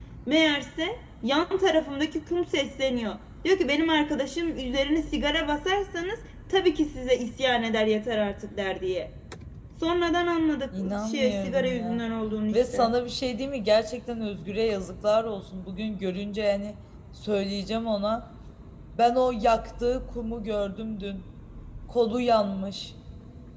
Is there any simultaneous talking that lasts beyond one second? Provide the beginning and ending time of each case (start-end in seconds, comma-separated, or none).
10.8-12.0